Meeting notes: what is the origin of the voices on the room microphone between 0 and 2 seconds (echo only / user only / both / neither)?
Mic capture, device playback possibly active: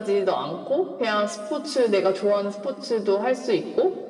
echo only